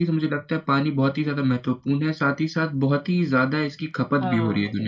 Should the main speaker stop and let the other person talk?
Yes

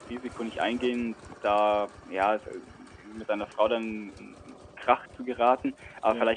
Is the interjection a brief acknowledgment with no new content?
Yes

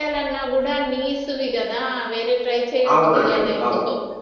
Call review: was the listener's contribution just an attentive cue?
No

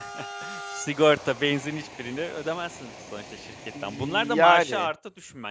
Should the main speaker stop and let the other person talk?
No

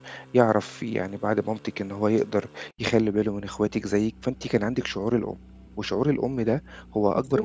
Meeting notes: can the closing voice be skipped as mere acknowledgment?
Yes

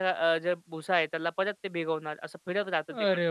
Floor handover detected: Yes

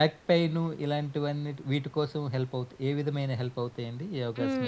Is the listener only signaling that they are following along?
No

